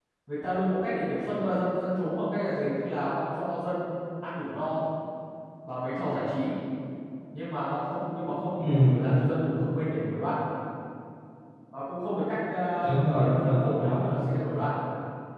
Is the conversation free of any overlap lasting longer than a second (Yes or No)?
No